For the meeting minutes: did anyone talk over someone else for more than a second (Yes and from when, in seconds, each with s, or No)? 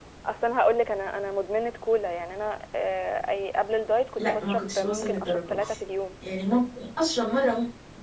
Yes, from 4.2 s